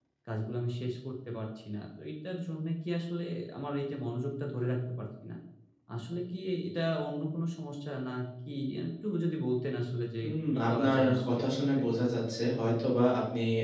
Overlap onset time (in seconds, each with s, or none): 10.2 s